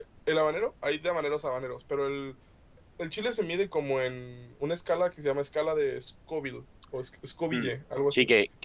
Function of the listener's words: taking over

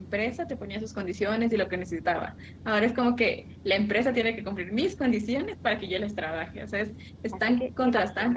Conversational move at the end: taking over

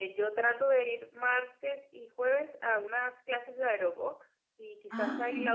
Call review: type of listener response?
listening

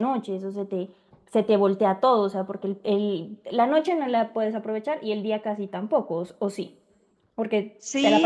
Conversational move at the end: taking over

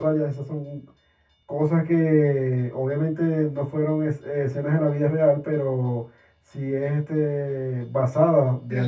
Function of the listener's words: listening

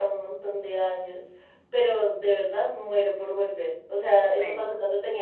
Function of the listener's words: listening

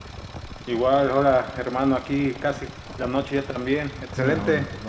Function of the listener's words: taking over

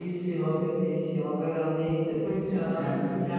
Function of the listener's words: listening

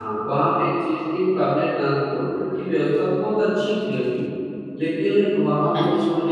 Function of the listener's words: listening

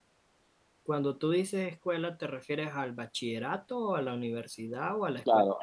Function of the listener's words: taking over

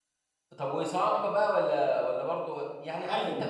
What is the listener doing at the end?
listening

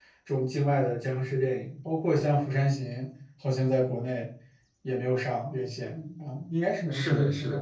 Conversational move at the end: taking over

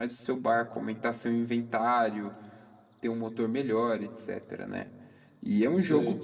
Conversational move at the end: listening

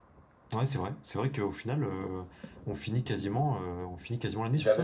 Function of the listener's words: taking over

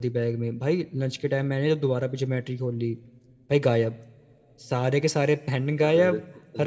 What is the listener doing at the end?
listening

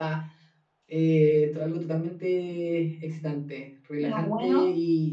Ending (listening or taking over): listening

